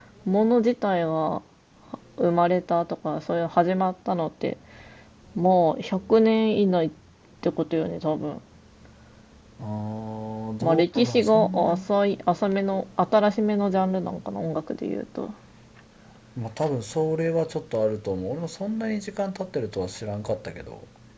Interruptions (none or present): present